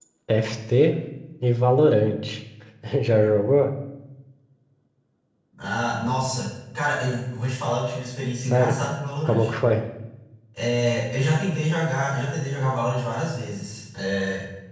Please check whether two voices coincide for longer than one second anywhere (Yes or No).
No